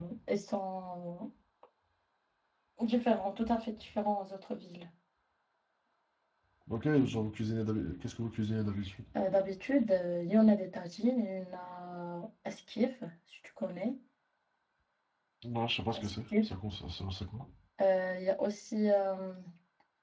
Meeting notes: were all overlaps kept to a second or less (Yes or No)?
Yes